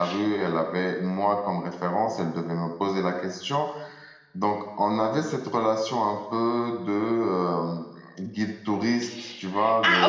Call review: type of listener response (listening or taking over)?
taking over